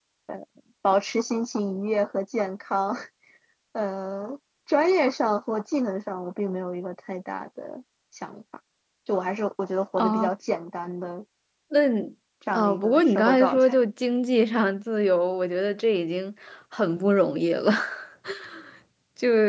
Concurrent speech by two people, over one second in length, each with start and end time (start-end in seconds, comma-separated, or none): 12.5-13.7